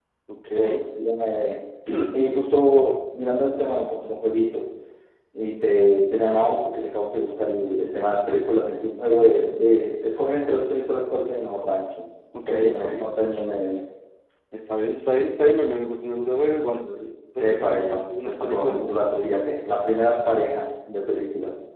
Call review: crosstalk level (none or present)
present